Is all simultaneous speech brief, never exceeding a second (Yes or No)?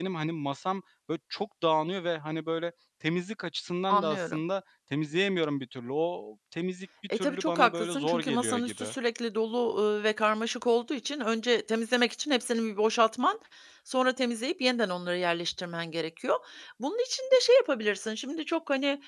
No